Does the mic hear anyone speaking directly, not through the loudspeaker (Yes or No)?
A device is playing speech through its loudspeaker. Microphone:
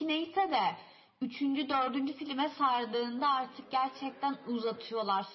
No